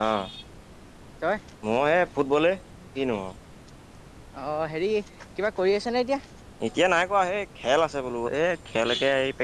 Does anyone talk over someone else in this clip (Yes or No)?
No